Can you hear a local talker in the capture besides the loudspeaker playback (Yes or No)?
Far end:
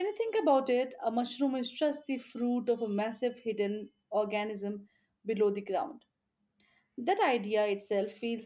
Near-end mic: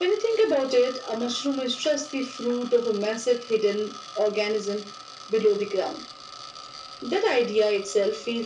No